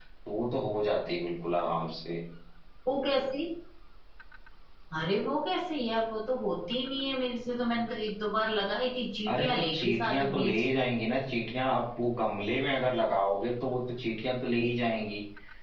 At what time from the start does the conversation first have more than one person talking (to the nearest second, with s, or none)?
9 s